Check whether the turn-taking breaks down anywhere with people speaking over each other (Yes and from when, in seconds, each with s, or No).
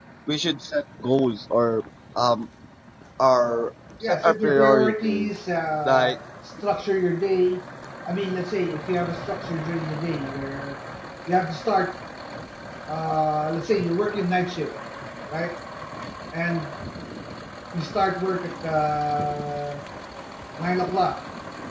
Yes, from 4.0 s